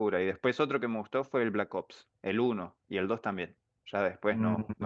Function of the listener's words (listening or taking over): taking over